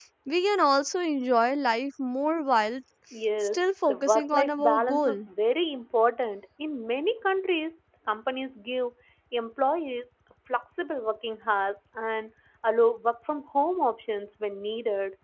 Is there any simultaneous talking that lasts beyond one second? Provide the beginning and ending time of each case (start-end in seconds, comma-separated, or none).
3.5-5.2